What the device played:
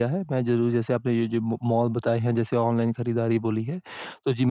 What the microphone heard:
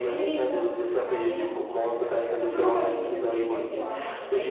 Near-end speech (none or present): present